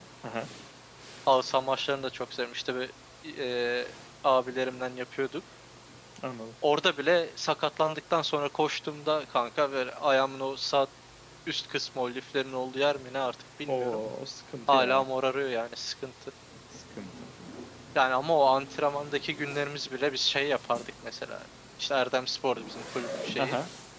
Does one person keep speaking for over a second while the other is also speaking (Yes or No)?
No